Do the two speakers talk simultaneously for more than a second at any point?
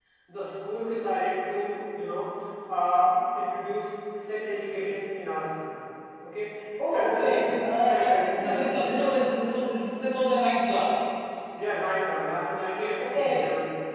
Yes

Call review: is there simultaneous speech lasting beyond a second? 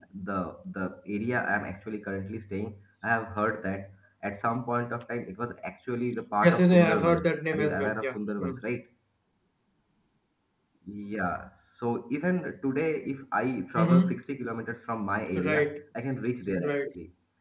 Yes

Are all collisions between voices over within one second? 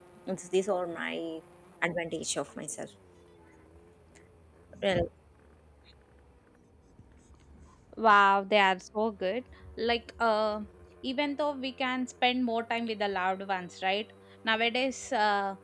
Yes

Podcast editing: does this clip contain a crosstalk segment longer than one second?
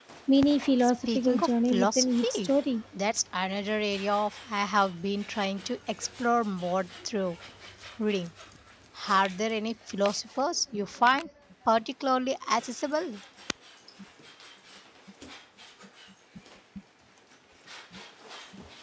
Yes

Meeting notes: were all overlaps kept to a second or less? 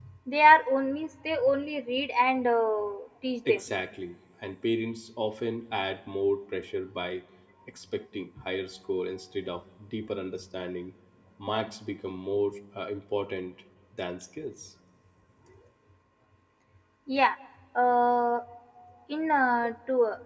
Yes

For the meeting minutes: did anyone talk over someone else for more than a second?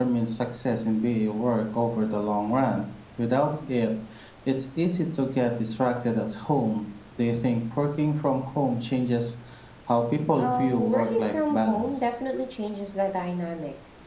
Yes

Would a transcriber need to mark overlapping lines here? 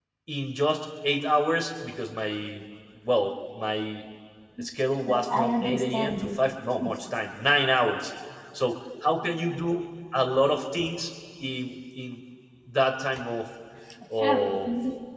Yes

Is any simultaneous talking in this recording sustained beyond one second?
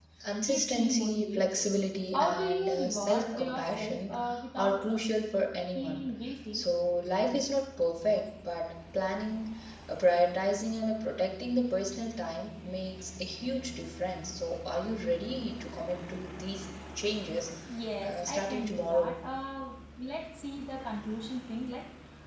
Yes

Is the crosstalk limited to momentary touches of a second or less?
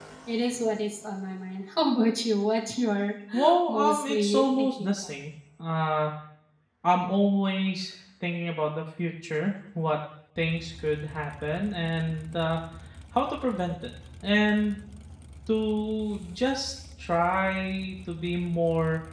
No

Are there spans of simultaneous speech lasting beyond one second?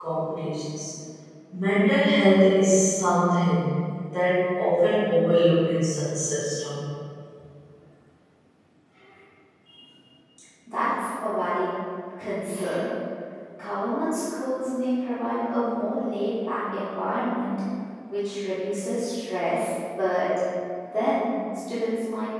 No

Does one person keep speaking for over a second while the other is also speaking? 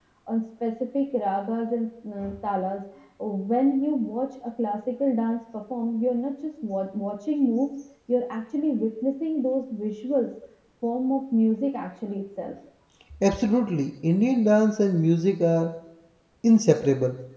No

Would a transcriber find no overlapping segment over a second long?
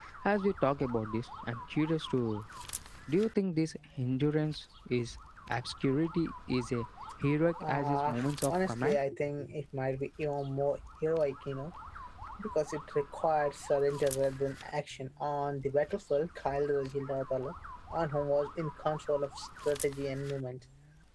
No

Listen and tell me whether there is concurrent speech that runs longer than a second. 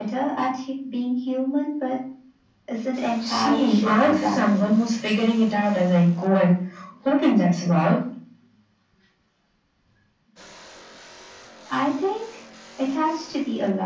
Yes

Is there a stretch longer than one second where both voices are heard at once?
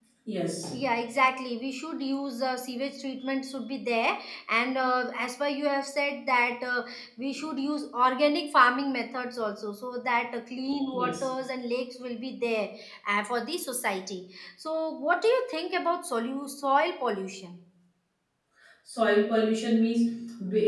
No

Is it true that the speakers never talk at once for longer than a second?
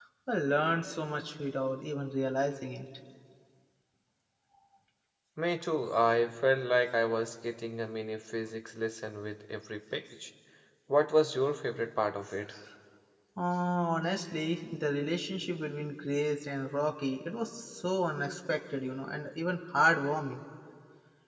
Yes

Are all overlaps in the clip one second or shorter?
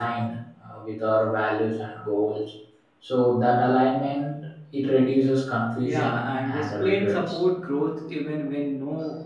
No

